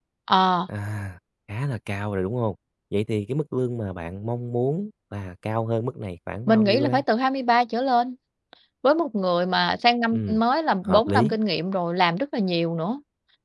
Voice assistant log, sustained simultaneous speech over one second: none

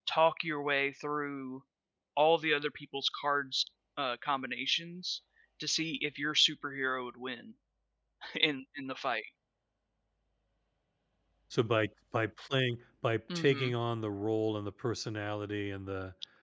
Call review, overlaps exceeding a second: none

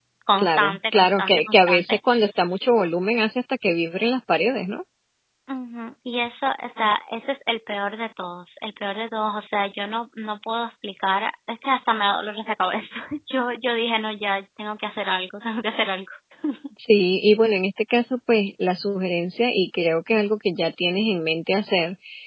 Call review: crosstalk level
present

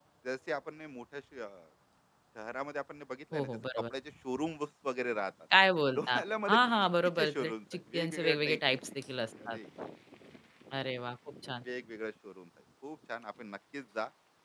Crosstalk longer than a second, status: present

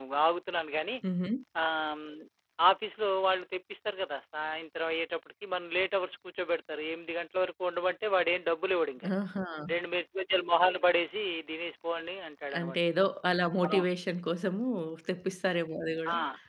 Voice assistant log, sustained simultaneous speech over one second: none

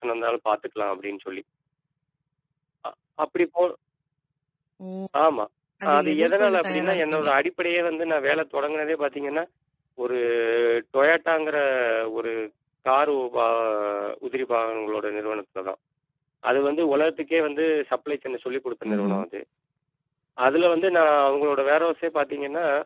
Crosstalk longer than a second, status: present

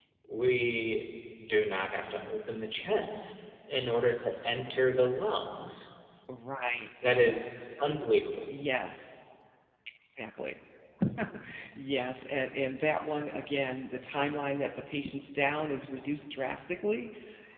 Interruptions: none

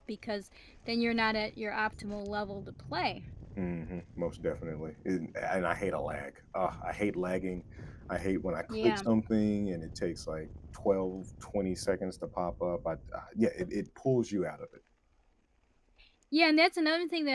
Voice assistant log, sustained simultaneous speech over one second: none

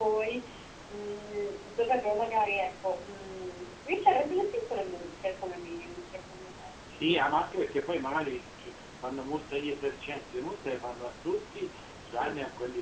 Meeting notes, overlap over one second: none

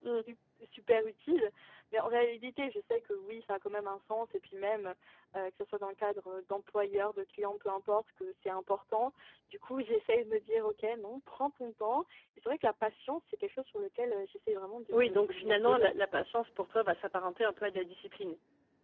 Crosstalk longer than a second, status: present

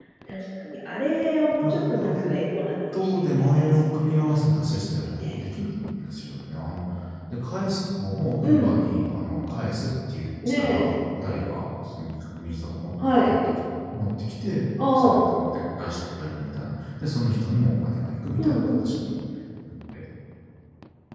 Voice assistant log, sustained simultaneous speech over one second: present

